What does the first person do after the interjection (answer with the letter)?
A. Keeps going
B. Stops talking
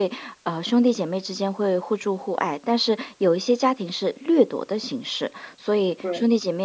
A